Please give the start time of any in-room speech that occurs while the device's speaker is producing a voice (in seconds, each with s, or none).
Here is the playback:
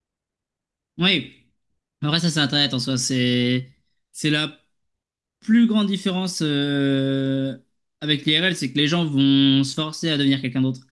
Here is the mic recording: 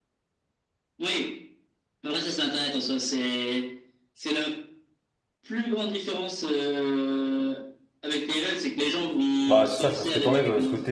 9.4 s